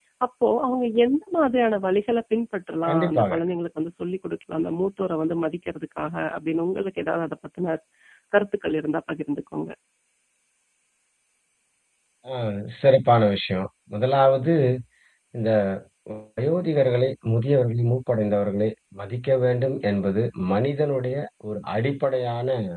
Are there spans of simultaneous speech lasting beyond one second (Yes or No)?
No